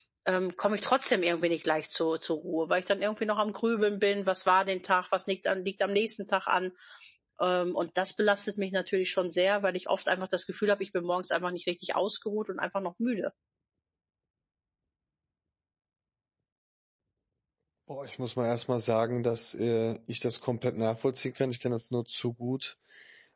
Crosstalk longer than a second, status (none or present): none